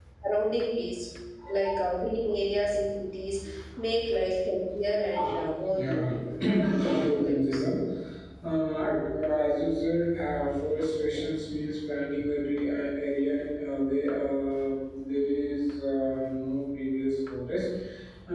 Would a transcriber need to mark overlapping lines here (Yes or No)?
Yes